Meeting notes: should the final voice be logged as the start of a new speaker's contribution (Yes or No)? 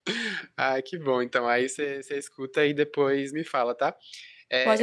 No